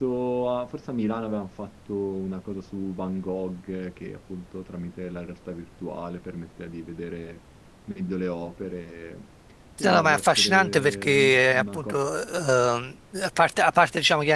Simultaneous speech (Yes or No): Yes